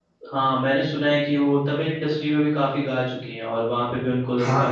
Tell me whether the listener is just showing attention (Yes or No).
No